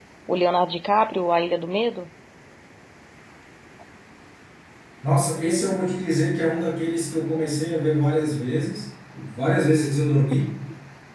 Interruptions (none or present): none